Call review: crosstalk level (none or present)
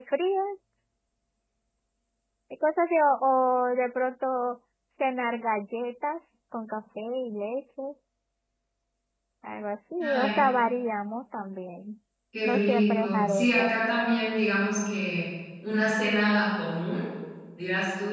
present